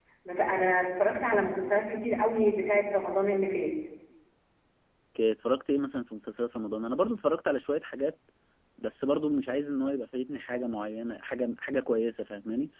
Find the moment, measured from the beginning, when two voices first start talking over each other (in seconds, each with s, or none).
none